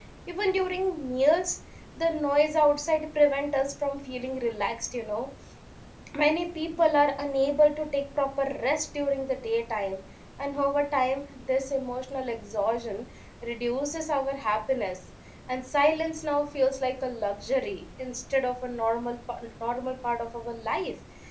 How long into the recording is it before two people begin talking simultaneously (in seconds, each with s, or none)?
none